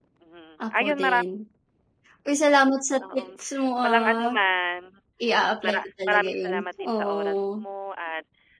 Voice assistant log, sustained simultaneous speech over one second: present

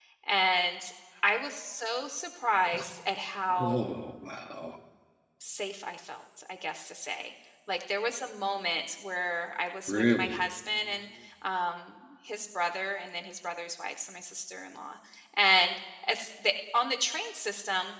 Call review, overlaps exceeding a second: none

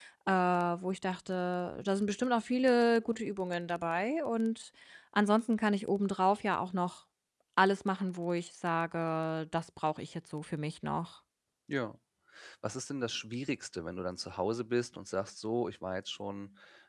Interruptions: none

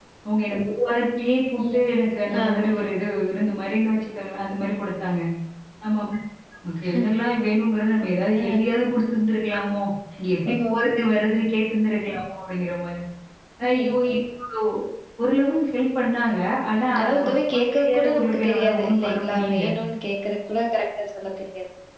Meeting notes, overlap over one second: present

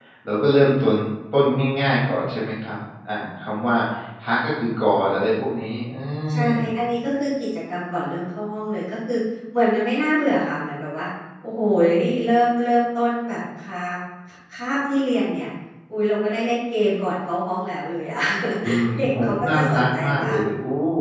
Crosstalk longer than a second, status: present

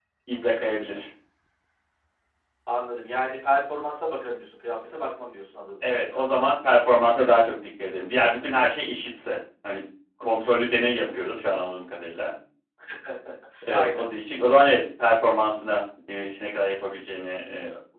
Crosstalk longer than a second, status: none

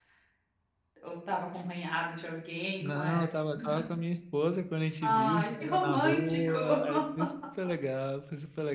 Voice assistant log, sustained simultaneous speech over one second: present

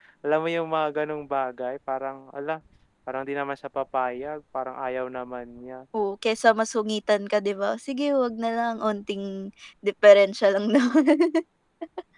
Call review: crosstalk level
none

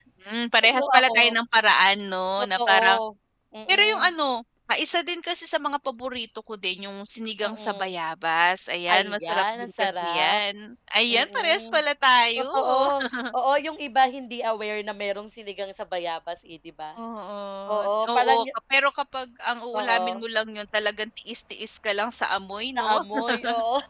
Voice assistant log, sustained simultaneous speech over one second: present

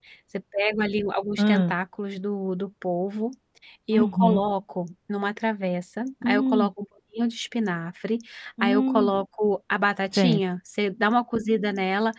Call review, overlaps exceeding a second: none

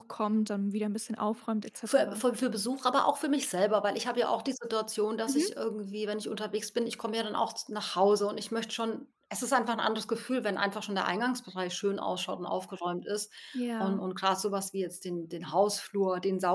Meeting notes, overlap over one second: none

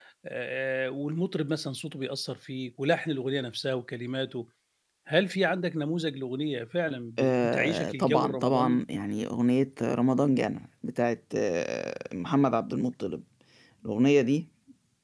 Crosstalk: present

